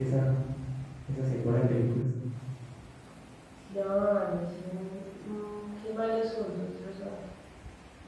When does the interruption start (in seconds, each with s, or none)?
none